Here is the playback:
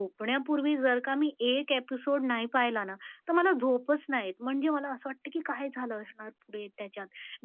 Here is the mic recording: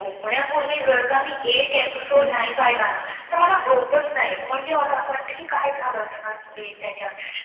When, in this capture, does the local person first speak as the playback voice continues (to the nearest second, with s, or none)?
2 s